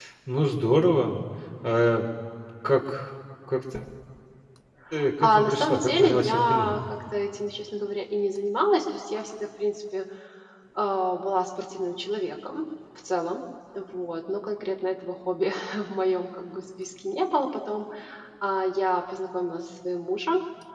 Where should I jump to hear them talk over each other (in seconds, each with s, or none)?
5.2 s